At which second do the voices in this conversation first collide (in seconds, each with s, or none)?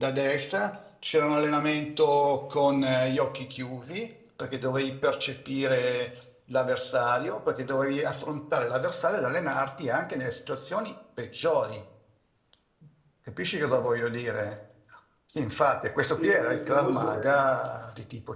16.1 s